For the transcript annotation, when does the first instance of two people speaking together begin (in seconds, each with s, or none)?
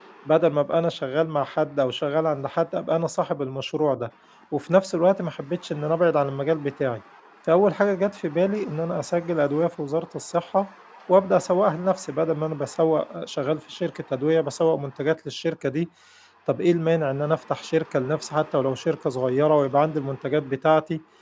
none